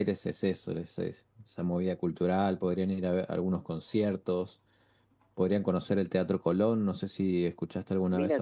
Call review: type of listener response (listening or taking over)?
taking over